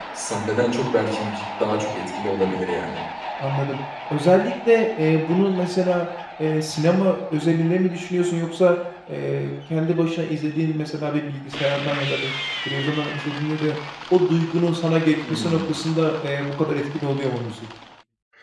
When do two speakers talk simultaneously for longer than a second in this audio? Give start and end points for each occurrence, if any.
none

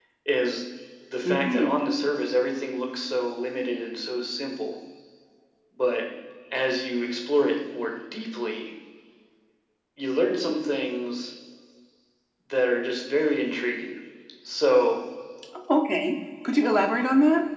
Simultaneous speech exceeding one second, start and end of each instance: none

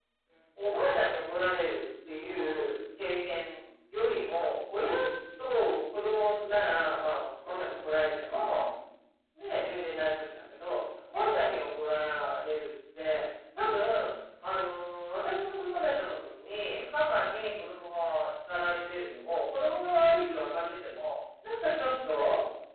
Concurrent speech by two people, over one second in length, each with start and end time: none

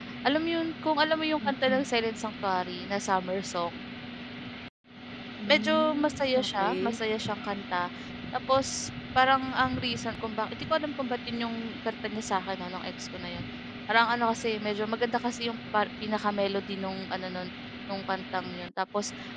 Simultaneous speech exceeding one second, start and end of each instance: 5.5-7.0

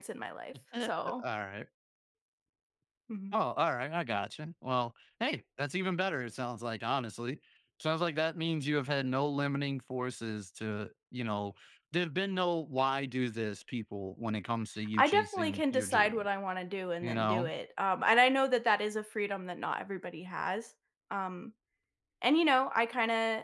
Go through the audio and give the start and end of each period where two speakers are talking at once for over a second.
15.0-16.2

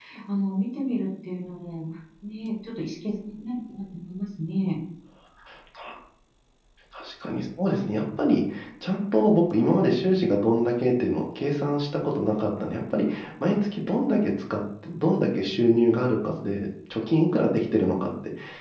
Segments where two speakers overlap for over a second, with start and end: none

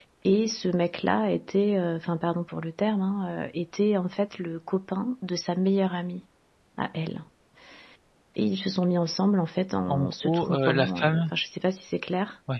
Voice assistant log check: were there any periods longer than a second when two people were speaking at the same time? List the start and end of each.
9.9-11.3

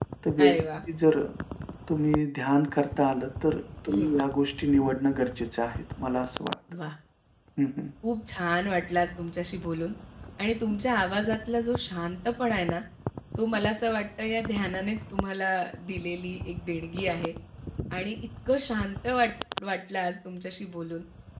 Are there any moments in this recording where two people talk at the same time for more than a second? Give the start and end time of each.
none

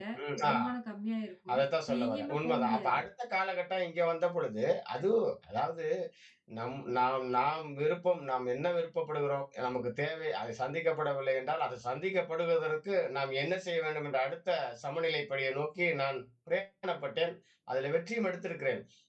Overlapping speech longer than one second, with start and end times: 1.5-3.0

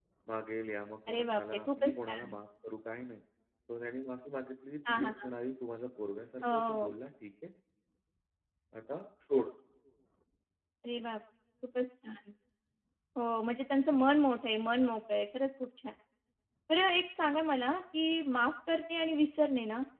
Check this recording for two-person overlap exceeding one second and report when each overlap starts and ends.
1.1-2.3

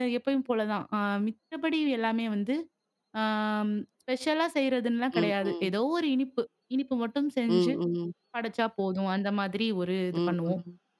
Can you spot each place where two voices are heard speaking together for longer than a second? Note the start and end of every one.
none

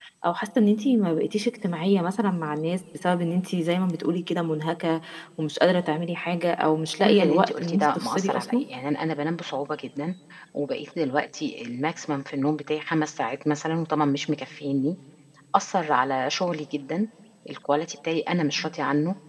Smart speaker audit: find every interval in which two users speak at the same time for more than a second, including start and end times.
7.0-8.6

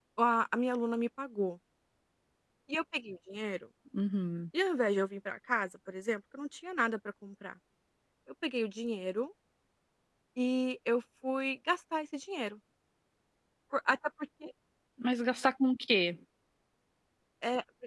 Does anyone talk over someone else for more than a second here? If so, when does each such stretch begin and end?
none

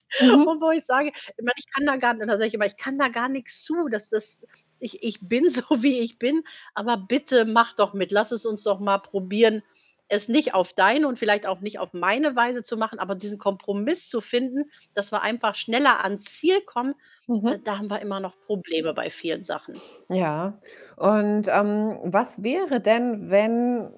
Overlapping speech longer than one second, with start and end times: none

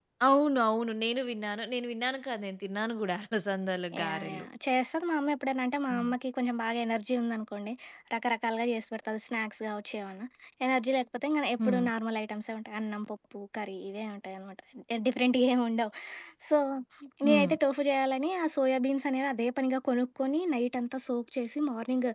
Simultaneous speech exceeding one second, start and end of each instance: none

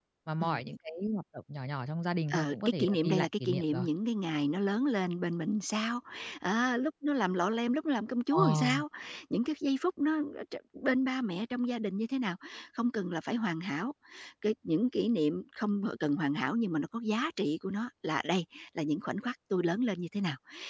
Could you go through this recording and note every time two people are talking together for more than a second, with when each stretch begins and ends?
2.3-3.9

